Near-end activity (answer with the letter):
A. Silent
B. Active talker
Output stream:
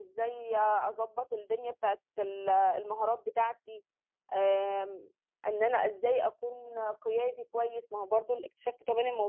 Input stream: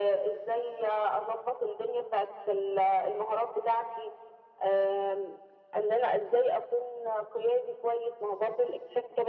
A